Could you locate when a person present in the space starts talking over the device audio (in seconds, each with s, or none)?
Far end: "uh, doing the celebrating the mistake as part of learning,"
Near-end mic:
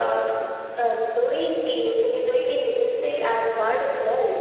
none